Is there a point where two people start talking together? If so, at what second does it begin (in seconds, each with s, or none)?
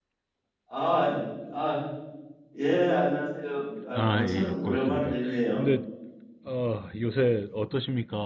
3.9 s